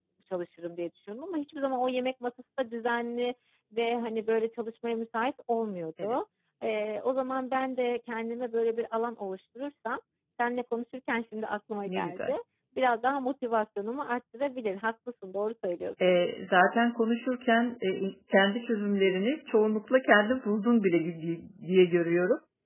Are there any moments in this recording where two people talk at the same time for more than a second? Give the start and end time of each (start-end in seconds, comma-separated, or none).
none